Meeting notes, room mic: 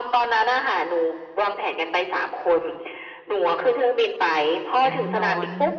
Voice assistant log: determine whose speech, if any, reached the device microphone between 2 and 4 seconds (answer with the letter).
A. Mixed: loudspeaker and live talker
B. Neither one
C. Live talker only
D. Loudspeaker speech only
D